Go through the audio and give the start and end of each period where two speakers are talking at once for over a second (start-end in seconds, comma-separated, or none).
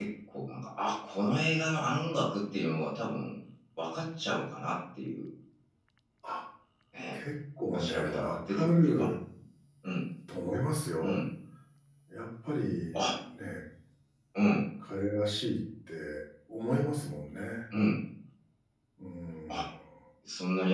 7.6-9.1